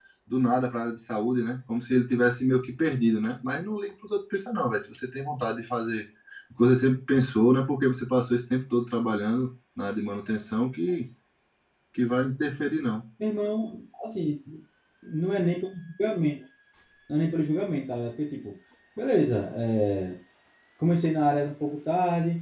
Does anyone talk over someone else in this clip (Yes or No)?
No